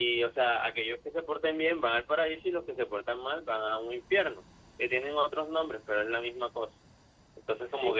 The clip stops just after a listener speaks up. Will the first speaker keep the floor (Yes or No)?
Yes